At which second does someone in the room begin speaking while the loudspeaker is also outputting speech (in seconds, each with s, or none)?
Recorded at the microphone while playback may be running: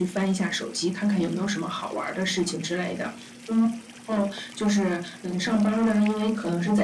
1.2 s